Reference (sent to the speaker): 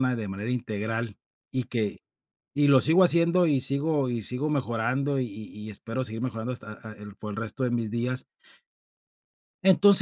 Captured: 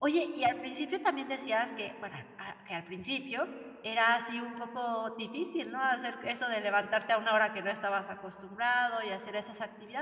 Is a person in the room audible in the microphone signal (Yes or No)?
Yes